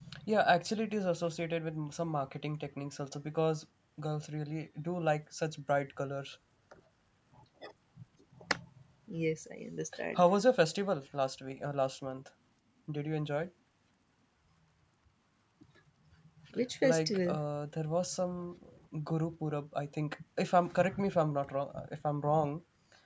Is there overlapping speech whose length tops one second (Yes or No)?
No